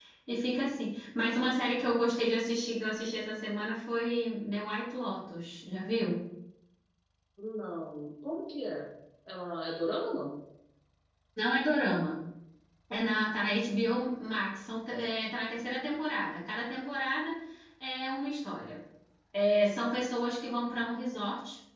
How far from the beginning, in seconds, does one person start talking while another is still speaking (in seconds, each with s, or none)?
none